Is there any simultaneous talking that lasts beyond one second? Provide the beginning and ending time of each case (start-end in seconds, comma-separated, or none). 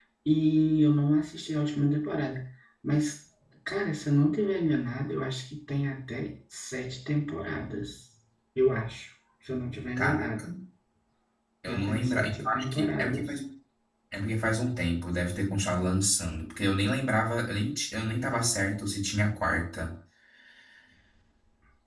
11.7-13.3